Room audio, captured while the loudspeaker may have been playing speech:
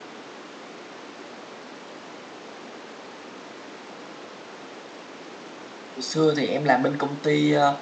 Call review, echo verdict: none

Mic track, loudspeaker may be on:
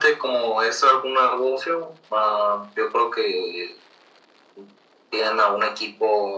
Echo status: present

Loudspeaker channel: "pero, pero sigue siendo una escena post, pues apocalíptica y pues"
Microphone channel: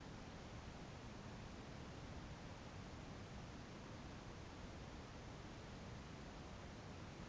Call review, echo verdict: none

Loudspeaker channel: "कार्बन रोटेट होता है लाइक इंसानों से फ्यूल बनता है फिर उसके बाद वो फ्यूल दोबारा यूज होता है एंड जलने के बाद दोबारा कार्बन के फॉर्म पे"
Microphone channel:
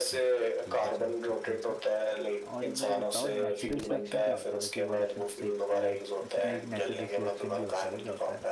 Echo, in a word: present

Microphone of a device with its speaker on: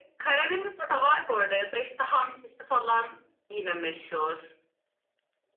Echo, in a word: present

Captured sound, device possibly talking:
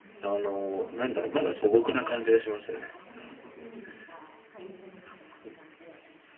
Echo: present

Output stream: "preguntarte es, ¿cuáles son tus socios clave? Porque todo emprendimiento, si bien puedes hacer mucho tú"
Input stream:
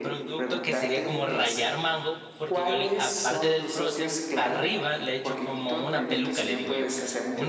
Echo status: present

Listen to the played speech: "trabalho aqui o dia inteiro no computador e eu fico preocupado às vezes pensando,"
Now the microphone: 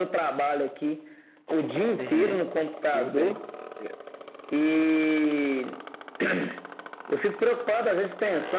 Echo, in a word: present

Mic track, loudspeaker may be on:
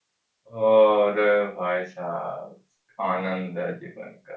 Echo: none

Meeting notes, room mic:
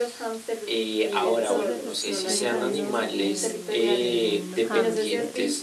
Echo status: present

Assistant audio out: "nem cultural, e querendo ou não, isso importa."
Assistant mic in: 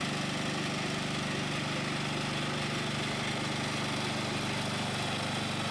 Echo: none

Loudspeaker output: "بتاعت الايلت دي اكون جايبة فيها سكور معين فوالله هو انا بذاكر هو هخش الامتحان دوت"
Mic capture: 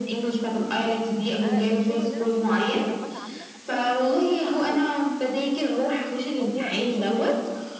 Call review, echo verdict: present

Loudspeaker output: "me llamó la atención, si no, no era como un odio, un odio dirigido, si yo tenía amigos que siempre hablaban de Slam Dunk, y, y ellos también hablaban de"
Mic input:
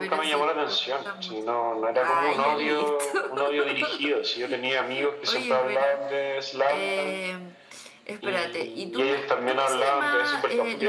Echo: present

